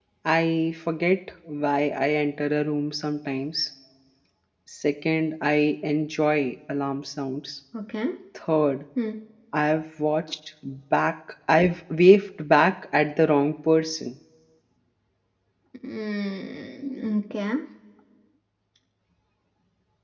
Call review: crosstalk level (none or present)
none